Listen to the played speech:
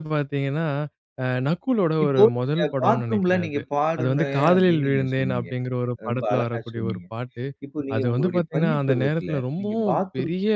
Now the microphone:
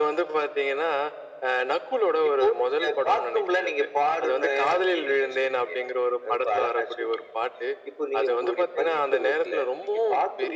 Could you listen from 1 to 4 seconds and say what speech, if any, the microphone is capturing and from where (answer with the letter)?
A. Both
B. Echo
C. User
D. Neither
B